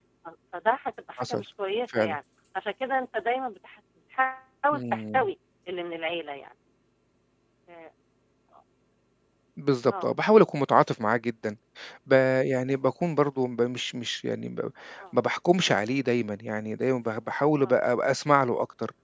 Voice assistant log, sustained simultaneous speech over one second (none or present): none